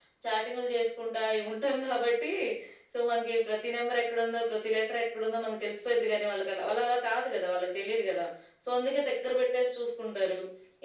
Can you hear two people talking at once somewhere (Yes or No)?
No